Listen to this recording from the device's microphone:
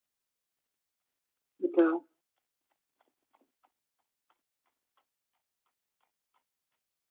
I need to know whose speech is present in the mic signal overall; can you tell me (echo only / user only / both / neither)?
user only